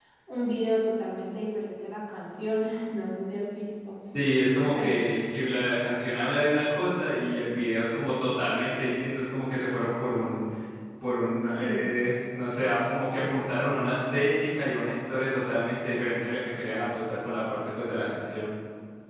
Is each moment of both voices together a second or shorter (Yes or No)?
Yes